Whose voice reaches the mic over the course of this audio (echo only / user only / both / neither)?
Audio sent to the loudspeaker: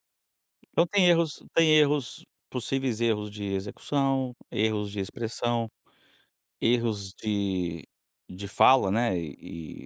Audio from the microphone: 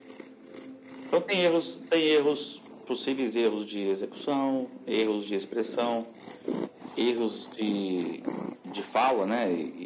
echo only